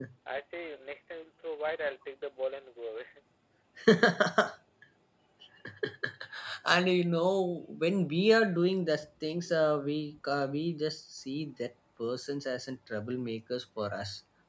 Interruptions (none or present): none